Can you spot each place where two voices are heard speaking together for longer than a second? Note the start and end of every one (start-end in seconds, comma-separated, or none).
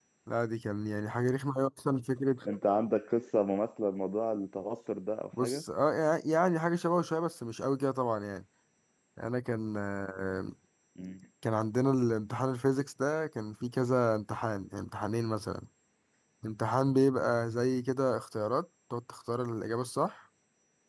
none